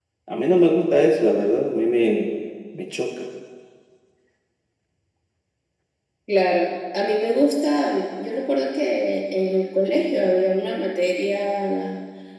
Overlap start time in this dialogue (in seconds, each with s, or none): none